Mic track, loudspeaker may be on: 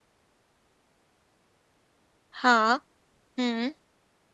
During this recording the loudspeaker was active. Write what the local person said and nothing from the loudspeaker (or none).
हाँ हम्म